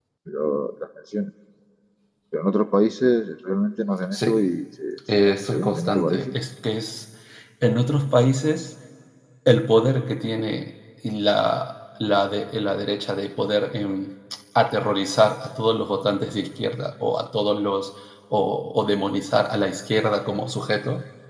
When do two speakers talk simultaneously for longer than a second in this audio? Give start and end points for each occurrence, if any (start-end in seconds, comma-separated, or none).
5.1-6.3